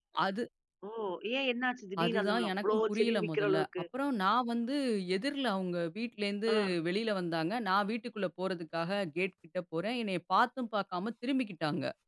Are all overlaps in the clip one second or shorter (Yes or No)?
No